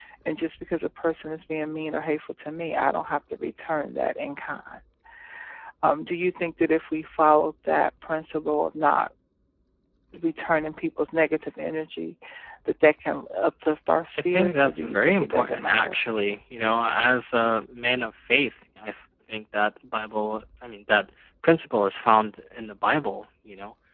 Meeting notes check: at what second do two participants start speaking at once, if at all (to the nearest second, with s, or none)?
14 s